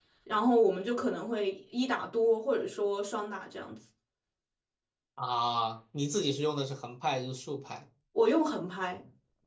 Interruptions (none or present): none